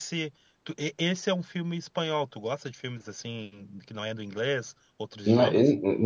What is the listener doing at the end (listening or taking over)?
taking over